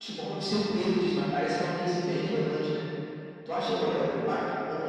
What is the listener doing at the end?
listening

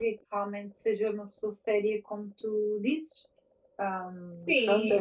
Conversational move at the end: taking over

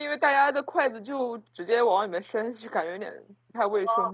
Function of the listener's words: taking over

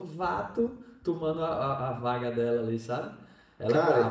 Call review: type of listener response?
taking over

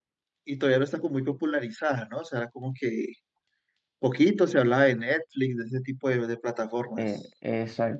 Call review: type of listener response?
taking over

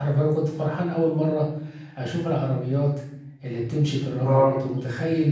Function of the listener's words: listening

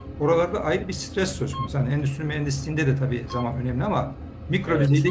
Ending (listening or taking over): listening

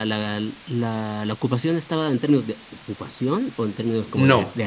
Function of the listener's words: taking over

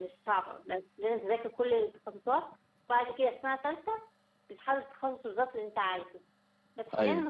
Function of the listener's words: listening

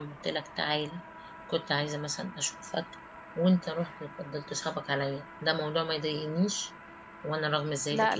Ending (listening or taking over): taking over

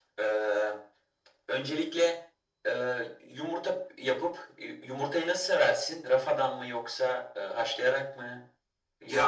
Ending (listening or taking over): taking over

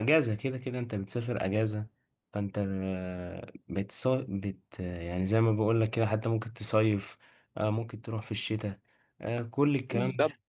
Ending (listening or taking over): taking over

